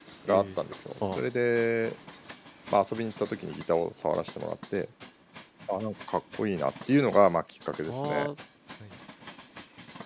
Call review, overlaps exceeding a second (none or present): none